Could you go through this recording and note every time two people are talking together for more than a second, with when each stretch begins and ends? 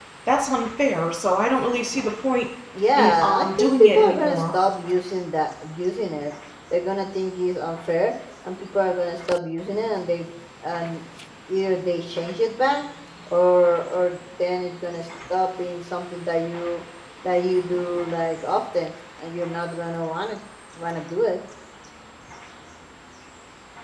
3.0-4.6

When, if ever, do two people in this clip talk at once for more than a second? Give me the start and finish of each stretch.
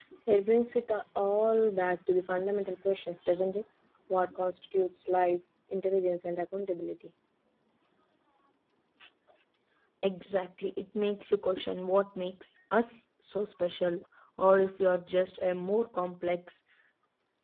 none

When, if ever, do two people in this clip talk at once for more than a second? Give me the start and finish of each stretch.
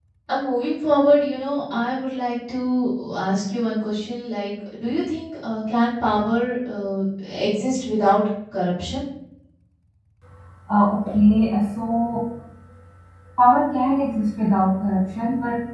none

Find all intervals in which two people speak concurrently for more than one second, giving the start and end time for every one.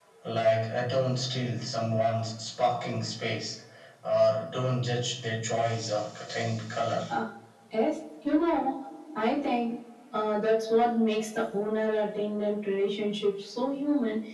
none

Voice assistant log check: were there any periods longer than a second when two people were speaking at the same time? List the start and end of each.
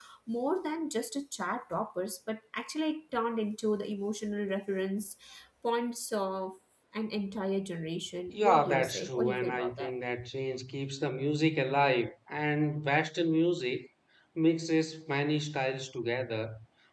8.3-10.0

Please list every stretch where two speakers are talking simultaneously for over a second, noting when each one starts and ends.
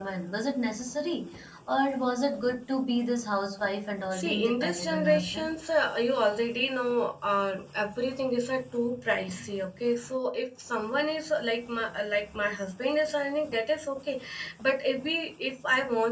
4.1-5.5

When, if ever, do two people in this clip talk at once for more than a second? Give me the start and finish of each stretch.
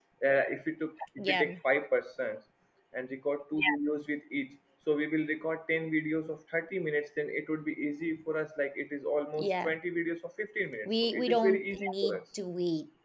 10.8-12.2

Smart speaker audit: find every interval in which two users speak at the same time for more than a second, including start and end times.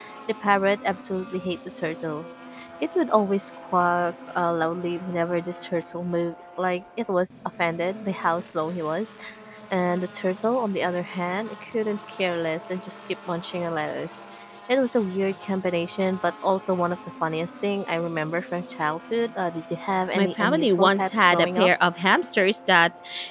20.2-21.7

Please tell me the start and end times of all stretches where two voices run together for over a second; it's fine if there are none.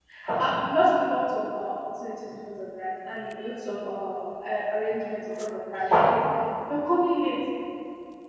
none

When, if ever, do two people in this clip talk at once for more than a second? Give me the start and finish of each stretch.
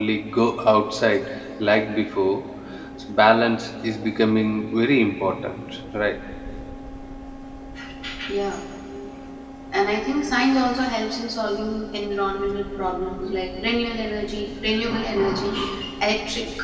none

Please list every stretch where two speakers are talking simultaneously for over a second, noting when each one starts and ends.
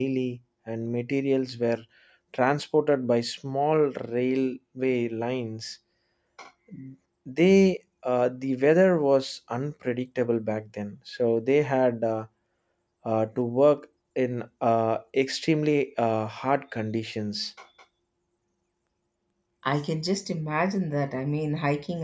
none

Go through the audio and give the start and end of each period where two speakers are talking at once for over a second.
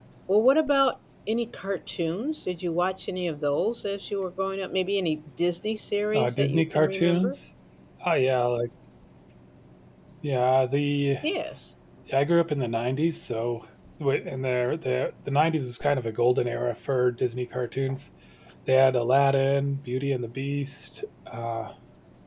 6.1-7.4

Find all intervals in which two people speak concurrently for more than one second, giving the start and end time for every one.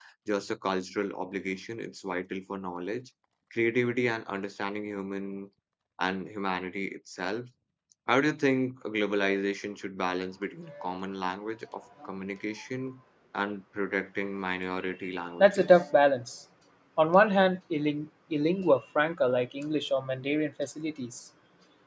none

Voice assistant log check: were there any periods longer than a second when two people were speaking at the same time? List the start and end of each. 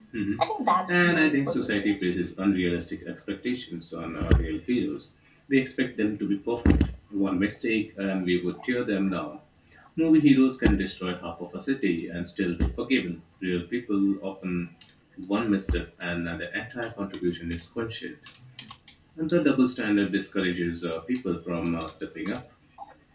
0.9-2.1

